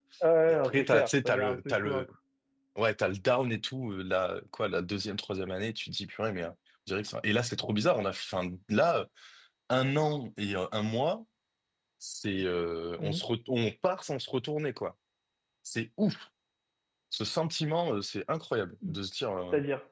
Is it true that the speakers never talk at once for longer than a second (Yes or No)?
No